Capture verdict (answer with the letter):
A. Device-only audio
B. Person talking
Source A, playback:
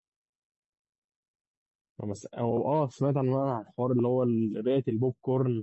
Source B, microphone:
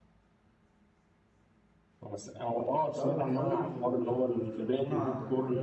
B